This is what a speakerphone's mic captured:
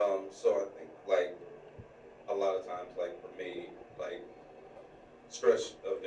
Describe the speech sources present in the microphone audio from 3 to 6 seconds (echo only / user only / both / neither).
echo only